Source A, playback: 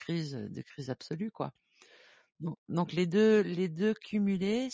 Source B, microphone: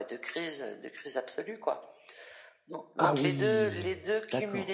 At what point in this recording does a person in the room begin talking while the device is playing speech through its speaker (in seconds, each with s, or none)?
3.0 s